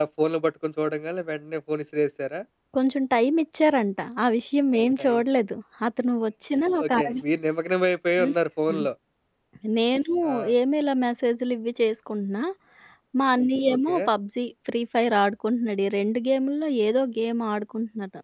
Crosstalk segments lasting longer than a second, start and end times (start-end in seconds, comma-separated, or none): none